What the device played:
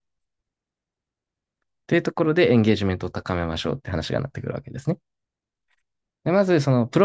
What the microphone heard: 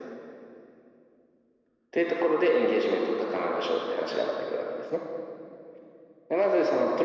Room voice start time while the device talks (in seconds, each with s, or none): none